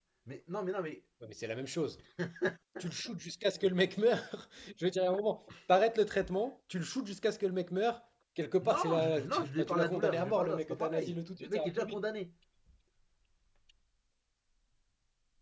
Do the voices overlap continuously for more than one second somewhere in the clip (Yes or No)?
Yes